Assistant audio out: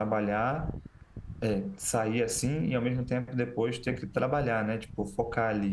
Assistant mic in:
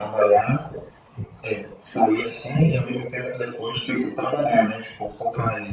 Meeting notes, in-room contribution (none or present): none